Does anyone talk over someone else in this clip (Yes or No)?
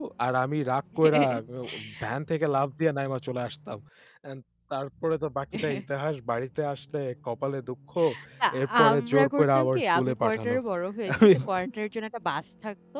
Yes